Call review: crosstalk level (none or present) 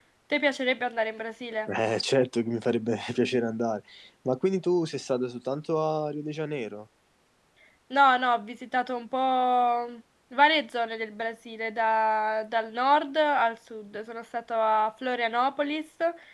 none